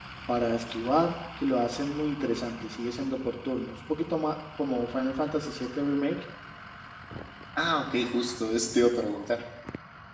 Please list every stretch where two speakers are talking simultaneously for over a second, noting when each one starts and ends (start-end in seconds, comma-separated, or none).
none